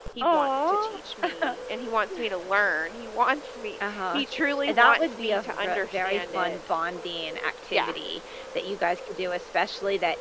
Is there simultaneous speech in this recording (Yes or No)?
Yes